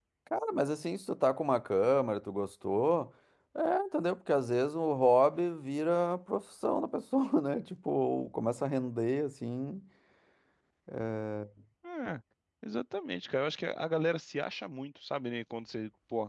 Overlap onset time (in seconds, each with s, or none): none